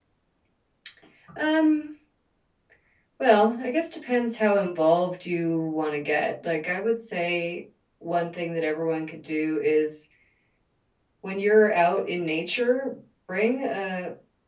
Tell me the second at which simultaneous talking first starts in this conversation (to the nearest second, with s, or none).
none